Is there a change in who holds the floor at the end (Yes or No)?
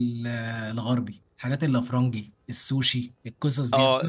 Yes